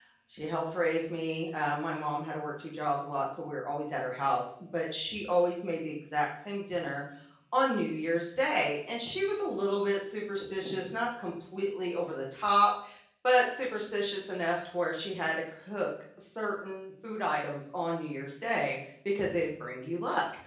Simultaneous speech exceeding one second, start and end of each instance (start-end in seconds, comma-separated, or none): none